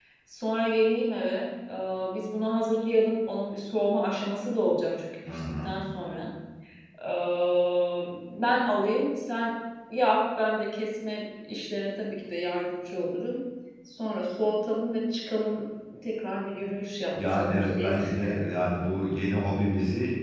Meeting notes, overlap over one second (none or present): present